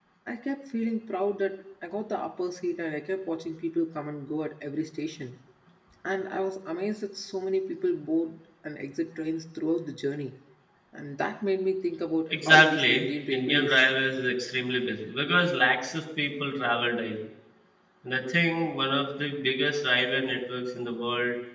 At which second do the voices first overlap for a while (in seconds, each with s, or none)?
12.3 s